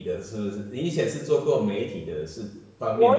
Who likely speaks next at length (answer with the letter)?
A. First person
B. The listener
B